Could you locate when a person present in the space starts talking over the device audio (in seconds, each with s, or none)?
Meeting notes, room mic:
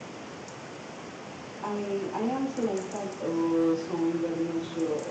1.6 s